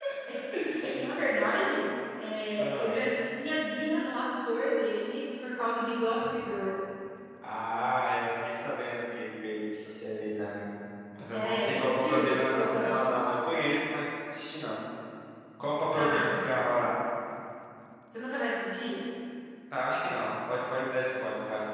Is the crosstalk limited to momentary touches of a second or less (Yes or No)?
No